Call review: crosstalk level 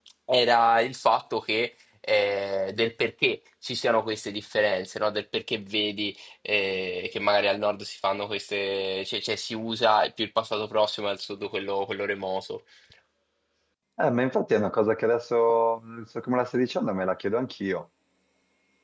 none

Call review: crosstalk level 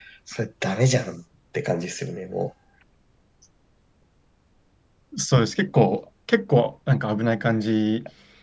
none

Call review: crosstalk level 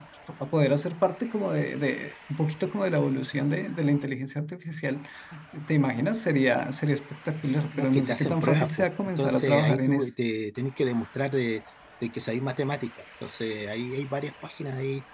present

